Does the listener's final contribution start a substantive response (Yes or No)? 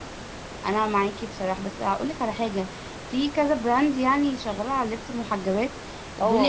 Yes